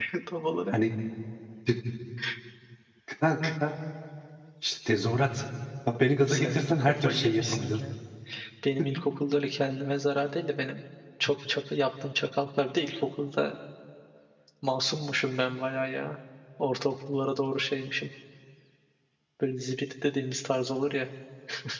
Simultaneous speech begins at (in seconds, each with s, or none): 6.2 s